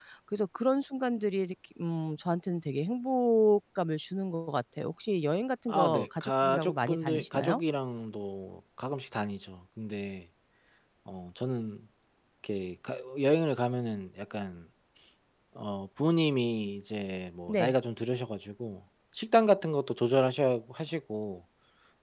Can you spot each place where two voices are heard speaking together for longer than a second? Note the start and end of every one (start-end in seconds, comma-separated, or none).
5.7-7.6